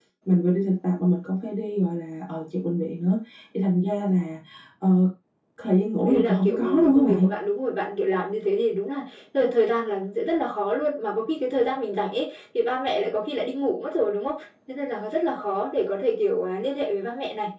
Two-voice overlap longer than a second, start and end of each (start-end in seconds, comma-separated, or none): 6.0-7.3